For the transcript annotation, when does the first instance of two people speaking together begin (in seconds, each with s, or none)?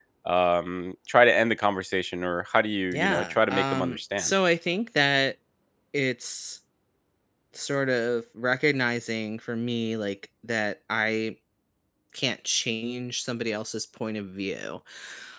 2.9 s